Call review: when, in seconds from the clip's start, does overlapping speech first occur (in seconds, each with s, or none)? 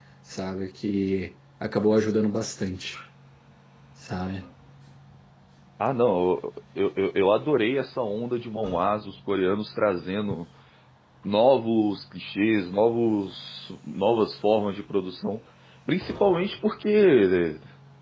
none